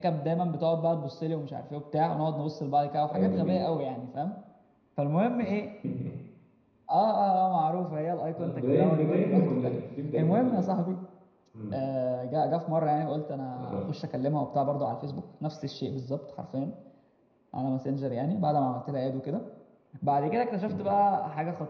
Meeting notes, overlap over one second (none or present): present